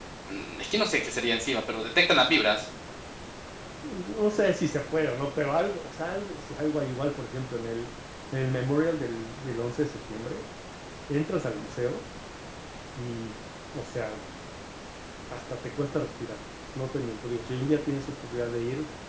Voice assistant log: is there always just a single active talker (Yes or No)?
Yes